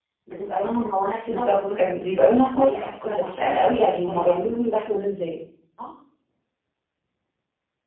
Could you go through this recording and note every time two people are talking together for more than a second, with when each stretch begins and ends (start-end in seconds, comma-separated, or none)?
1.3-4.6